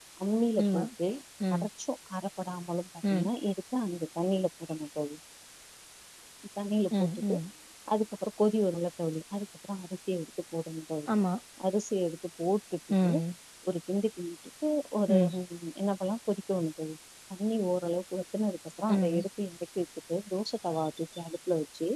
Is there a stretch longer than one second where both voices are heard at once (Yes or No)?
No